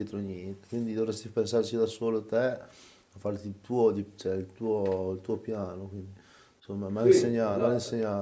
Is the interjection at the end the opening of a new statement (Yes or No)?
No